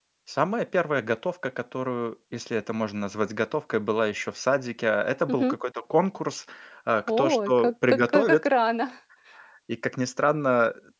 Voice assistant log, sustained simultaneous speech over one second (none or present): present